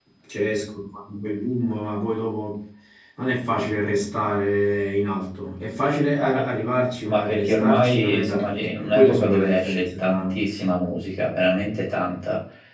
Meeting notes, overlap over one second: present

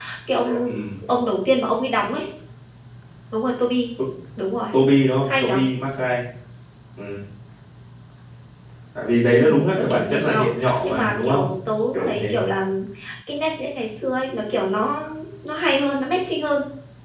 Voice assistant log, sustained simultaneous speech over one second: present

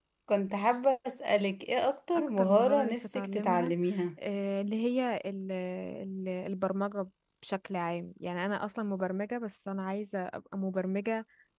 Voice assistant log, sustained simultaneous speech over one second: present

